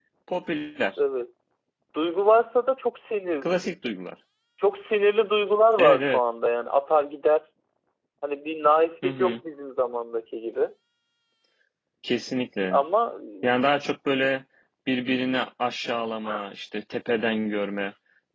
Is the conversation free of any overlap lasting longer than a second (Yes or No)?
Yes